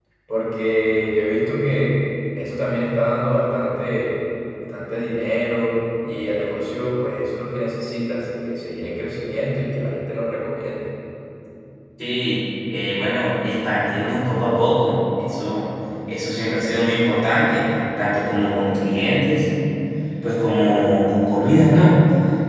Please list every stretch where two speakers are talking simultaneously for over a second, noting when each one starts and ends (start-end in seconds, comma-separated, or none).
none